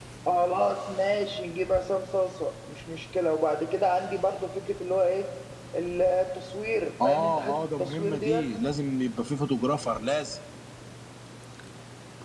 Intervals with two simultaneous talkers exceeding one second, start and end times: 7.0-8.4

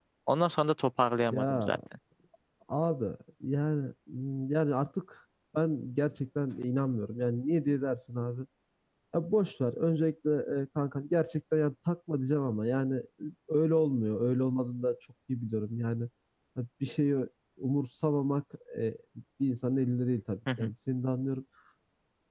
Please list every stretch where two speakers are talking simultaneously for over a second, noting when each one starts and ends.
none

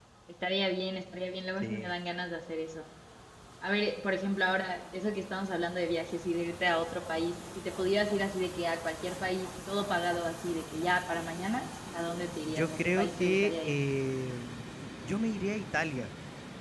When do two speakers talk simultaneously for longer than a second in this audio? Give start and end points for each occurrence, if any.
12.4-13.8

